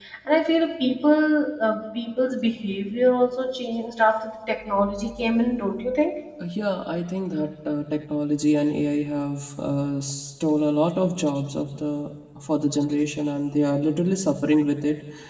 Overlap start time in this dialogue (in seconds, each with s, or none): none